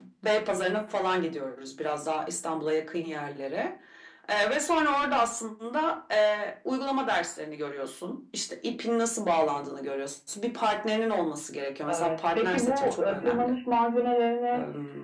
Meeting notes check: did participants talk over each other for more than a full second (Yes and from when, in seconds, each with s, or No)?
Yes, from 11.9 s